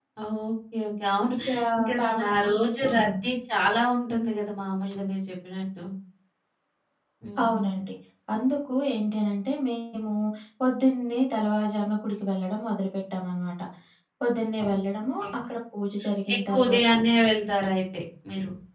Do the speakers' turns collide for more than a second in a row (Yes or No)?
Yes